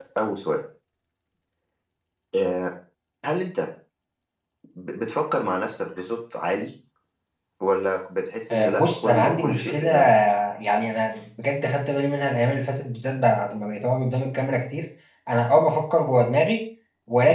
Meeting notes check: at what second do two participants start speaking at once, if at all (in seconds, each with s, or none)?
8.5 s